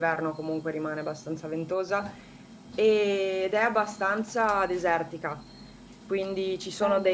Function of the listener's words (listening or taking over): listening